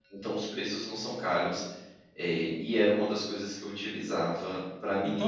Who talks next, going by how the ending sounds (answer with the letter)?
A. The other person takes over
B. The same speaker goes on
A